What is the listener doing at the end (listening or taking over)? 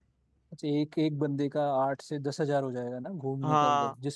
taking over